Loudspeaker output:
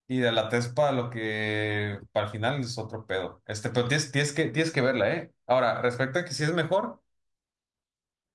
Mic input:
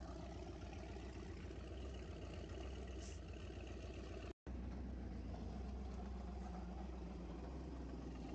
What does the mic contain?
neither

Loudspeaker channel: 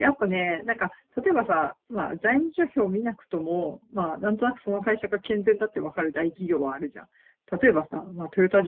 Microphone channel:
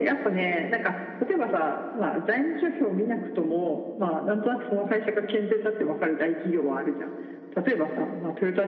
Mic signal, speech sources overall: echo only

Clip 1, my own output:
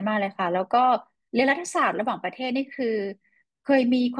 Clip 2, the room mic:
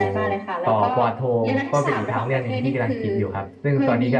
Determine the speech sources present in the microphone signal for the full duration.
both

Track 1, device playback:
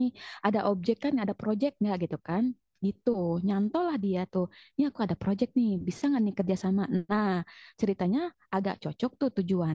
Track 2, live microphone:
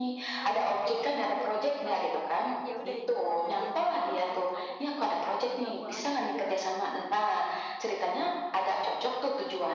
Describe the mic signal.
both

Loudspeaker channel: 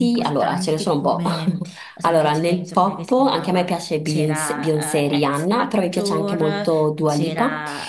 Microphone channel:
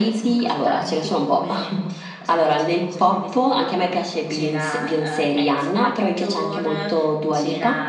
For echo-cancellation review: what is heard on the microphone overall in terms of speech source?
echo only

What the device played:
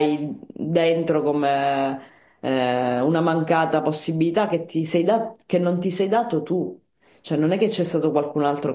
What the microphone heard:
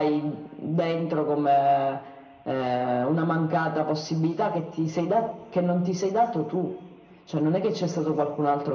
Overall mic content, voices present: echo only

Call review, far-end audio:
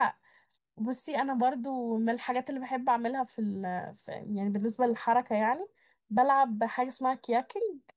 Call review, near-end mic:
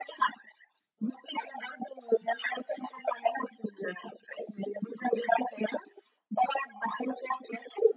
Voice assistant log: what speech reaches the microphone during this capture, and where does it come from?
echo only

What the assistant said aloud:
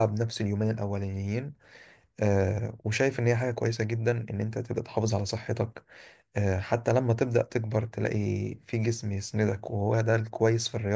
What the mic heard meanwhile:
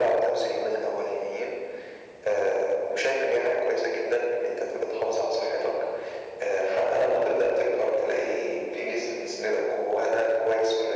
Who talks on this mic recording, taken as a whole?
echo only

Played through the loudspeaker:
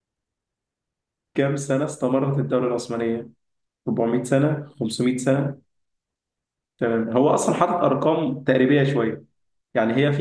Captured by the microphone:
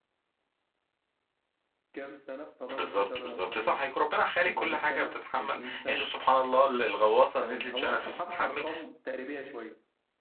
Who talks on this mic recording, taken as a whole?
both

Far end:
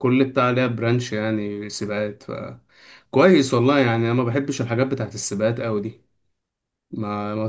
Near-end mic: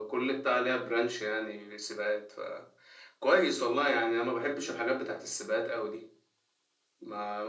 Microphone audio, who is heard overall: echo only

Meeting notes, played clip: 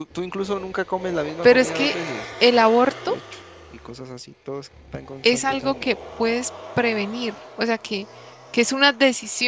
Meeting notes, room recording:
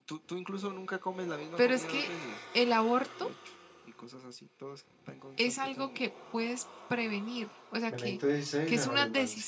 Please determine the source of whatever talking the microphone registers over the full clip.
both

